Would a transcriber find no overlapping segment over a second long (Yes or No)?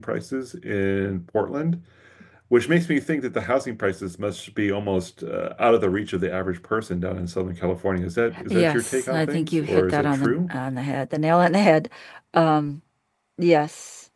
No